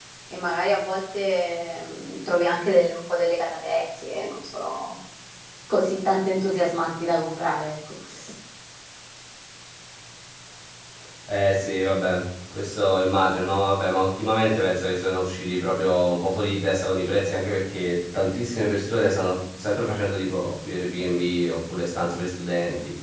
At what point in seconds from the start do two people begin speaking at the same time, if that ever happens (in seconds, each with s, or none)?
none